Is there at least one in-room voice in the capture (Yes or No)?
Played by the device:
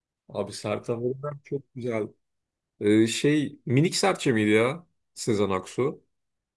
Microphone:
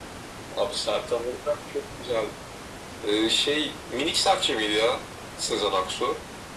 No